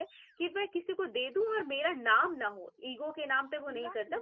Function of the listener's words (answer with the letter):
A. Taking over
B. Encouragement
B